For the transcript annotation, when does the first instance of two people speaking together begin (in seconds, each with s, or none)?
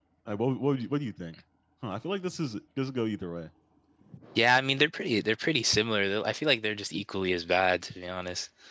none